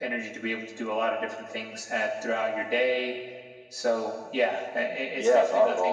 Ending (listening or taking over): taking over